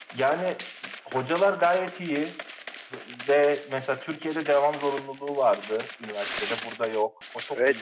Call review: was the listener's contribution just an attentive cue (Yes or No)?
No